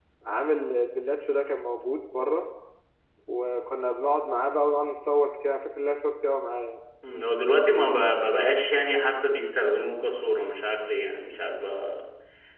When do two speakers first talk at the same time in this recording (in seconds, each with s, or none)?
none